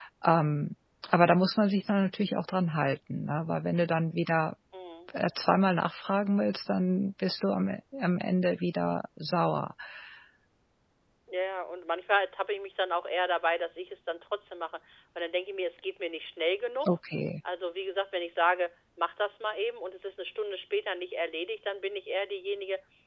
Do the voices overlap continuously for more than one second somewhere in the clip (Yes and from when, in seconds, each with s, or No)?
No